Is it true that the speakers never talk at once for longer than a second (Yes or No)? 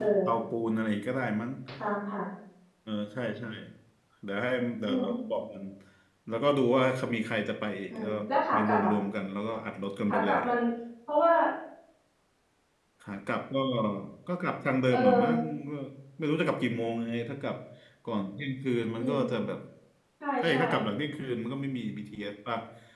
Yes